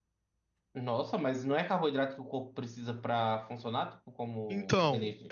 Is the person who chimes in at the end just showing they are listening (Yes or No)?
No